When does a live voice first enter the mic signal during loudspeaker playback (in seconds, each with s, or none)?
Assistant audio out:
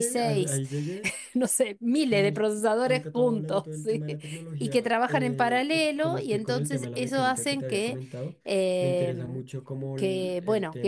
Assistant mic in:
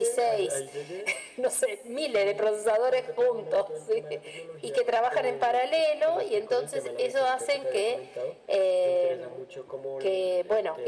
none